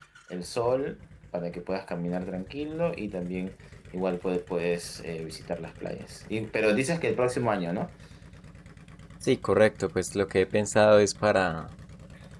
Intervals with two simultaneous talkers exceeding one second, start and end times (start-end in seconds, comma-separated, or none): none